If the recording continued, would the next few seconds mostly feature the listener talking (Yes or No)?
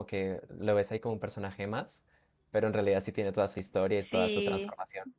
Yes